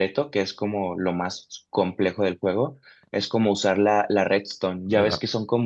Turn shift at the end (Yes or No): No